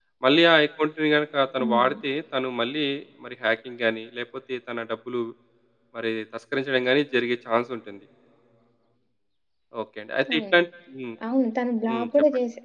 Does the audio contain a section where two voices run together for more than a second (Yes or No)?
No